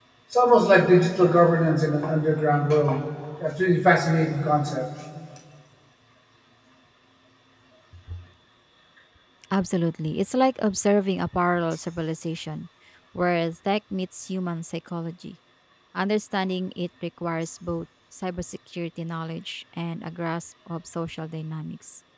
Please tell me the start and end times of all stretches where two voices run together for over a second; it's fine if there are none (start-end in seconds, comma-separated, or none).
none